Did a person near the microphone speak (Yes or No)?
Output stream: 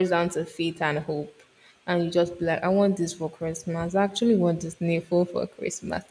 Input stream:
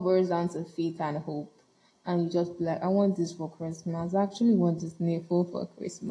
No